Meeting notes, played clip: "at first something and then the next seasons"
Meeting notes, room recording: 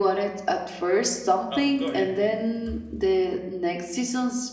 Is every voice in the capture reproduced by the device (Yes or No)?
No